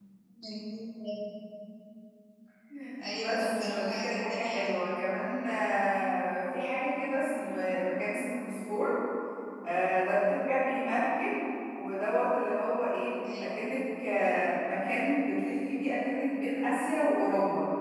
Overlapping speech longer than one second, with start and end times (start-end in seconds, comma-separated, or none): 3.1-4.8